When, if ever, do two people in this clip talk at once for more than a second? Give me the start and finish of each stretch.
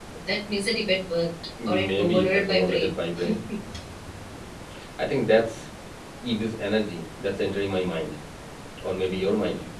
1.6-2.9

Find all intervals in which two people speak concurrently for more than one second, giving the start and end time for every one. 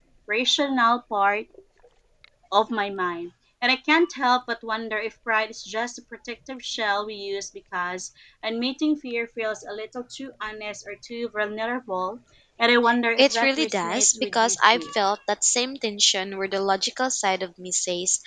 13.2-14.8

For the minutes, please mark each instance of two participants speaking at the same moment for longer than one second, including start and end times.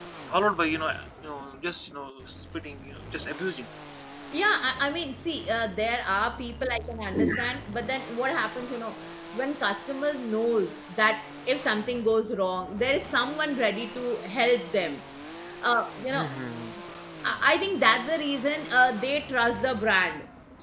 none

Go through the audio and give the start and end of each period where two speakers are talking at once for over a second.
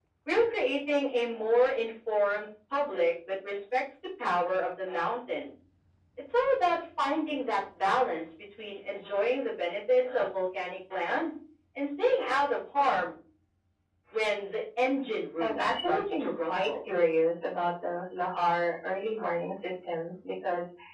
15.4-16.8

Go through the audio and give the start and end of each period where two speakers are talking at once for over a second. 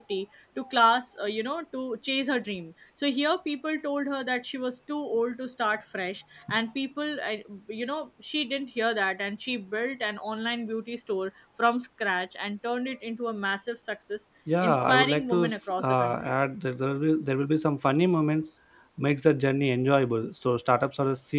14.6-16.2

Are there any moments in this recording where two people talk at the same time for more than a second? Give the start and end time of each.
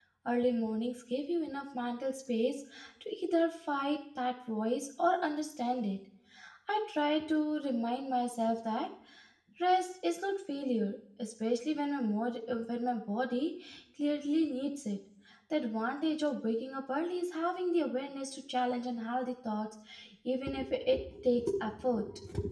none

